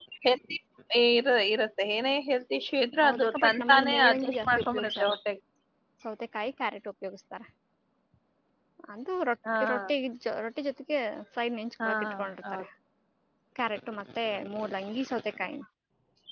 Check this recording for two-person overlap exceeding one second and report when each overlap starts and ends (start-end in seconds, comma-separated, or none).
3.0-5.1